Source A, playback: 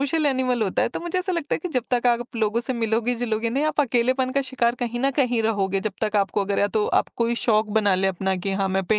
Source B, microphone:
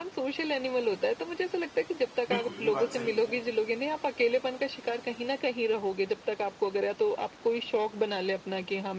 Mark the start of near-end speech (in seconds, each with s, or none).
2.3 s